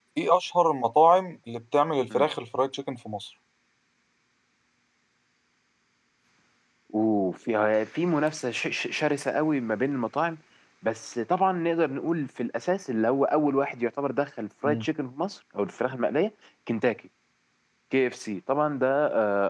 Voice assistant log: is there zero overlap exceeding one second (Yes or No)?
Yes